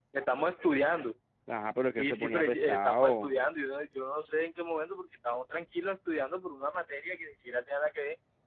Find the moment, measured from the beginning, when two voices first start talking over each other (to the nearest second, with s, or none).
2 s